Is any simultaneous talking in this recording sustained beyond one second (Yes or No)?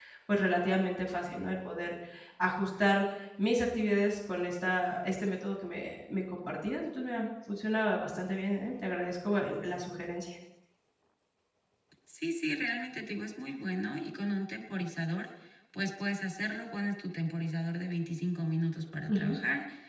No